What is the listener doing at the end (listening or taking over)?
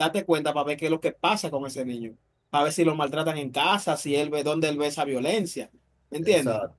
listening